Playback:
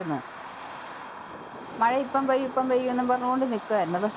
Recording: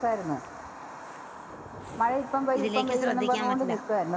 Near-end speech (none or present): present